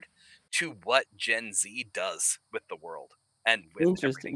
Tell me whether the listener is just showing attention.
No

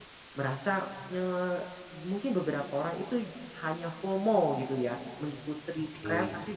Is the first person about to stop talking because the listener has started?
No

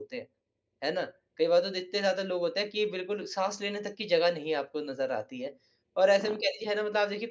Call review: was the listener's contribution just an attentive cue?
Yes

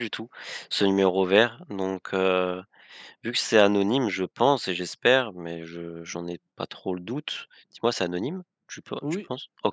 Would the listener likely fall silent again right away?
No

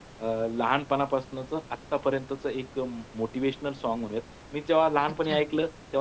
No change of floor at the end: Yes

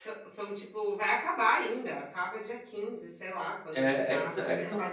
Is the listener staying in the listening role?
No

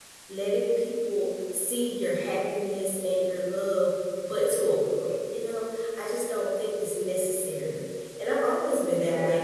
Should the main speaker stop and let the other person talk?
No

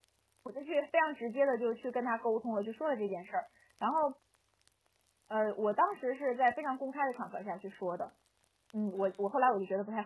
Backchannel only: Yes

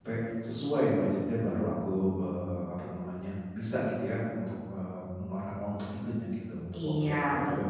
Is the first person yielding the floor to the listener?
Yes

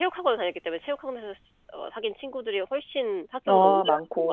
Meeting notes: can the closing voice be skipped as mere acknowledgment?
No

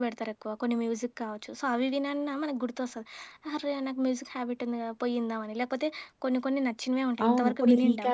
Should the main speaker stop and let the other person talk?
Yes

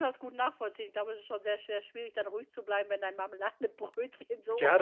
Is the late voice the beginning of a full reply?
Yes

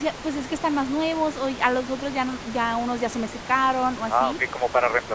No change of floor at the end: No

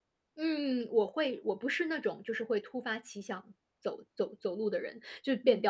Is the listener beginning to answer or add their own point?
No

